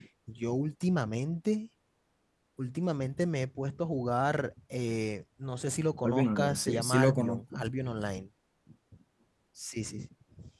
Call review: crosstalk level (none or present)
present